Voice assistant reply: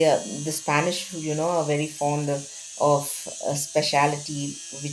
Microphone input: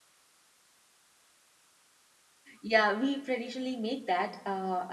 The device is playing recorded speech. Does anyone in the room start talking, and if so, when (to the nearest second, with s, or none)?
3 s